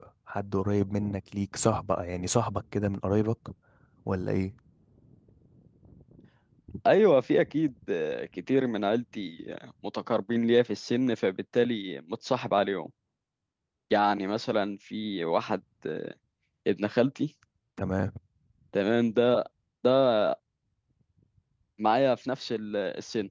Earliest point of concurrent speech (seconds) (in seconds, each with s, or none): none